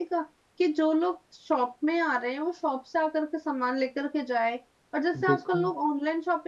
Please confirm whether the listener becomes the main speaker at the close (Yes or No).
No